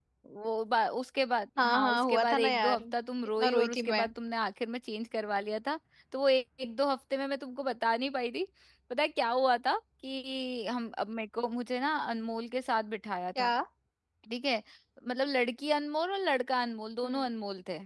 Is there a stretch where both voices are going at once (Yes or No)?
Yes